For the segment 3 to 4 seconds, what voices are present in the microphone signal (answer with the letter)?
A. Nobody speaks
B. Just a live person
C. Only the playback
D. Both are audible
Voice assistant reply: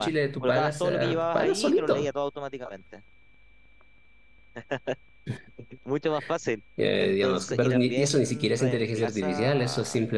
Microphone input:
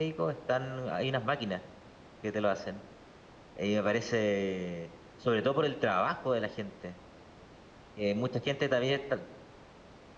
B